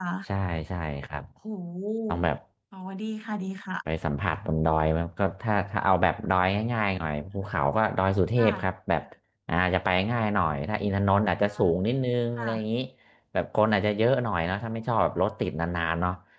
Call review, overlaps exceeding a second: none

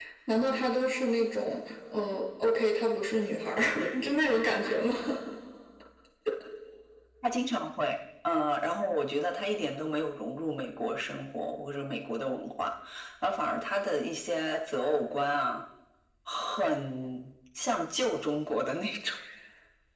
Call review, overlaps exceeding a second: none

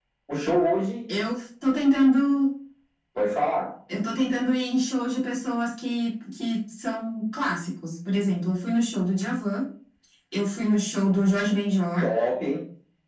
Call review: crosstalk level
none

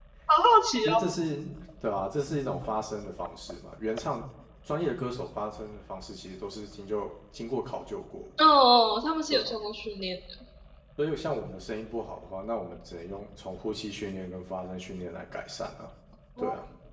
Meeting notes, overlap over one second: none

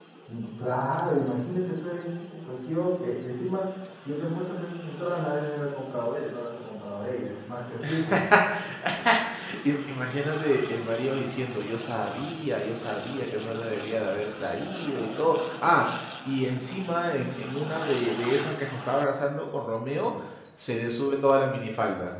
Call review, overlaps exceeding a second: none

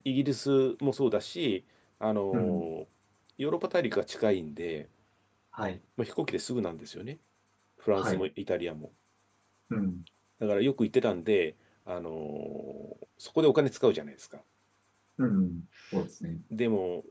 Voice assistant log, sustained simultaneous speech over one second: none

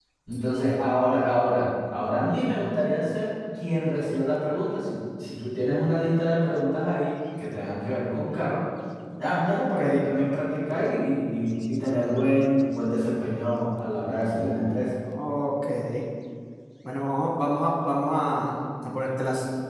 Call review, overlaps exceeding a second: none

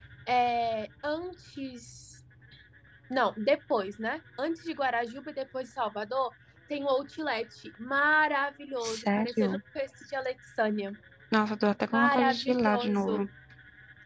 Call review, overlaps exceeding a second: present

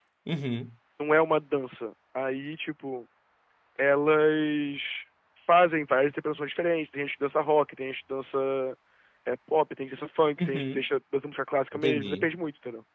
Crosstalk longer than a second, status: none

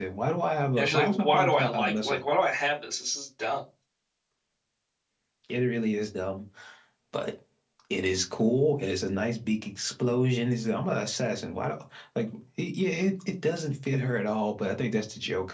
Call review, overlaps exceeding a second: present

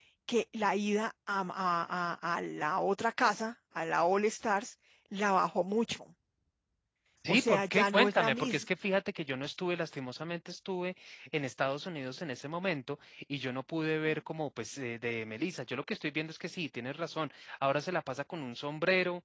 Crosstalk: present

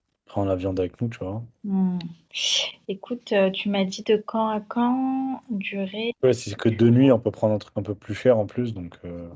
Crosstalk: none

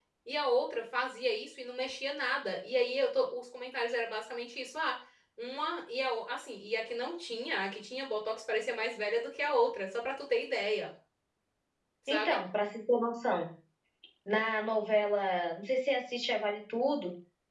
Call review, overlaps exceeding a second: none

